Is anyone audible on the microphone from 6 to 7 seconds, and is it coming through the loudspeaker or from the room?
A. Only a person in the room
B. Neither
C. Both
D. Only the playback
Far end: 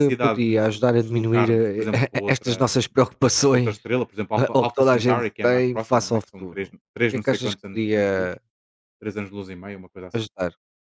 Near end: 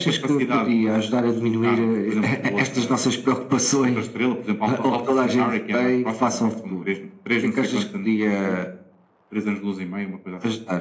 D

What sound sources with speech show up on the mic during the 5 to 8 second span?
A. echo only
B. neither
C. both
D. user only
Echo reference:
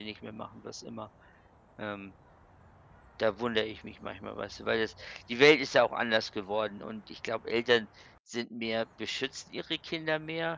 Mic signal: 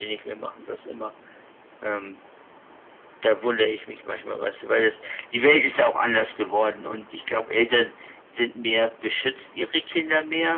A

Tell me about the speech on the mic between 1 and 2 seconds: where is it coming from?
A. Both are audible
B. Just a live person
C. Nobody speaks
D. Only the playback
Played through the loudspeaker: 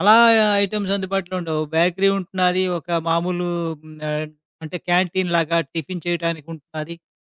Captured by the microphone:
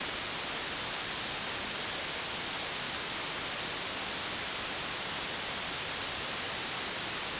C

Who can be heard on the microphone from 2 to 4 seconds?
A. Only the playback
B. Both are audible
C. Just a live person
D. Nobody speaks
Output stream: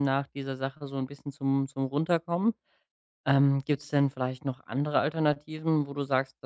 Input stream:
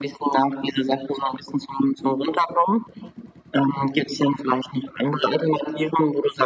A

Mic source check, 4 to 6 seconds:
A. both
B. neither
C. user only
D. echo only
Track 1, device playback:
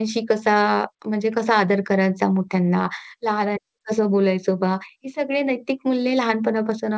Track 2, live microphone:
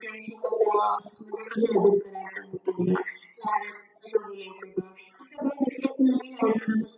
D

